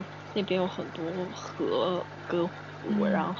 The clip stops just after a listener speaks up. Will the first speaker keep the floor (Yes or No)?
Yes